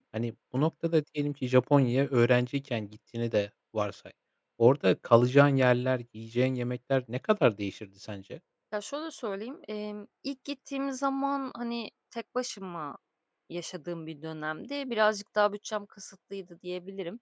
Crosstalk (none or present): none